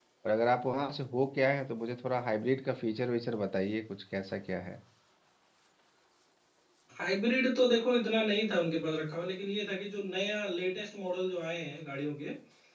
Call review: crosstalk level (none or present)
none